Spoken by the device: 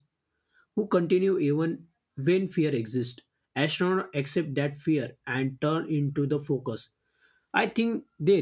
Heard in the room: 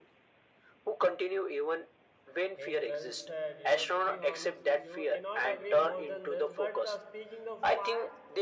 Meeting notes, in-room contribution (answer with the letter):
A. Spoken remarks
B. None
A